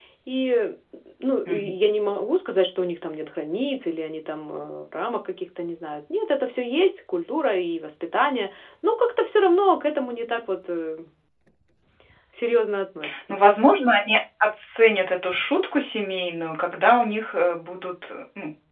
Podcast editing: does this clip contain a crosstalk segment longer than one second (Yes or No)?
No